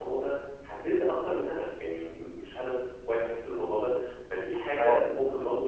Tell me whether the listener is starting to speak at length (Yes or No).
No